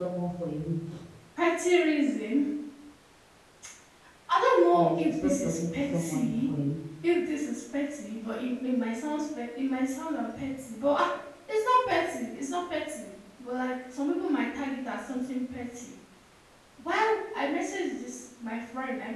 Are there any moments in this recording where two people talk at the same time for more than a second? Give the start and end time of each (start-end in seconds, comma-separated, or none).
4.7-6.5